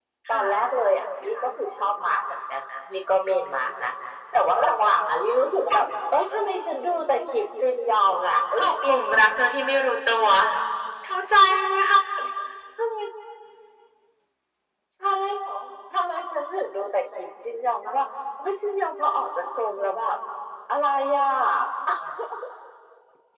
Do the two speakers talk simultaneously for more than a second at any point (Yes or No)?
No